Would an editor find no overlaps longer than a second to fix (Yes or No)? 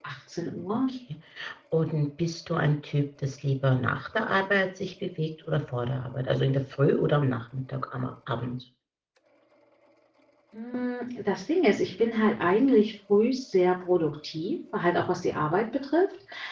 Yes